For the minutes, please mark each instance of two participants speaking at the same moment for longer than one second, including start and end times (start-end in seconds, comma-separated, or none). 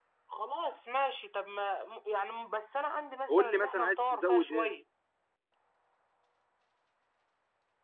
3.3-4.7